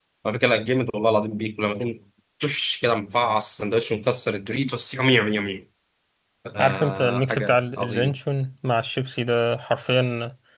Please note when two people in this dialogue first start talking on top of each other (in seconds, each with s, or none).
6.6 s